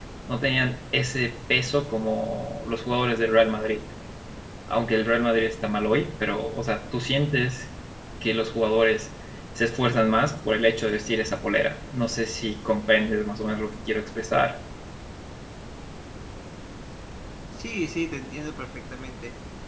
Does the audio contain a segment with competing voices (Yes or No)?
No